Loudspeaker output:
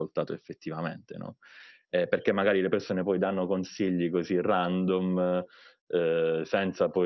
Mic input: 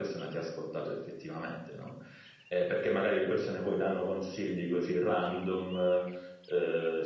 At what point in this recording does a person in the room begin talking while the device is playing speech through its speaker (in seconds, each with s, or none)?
none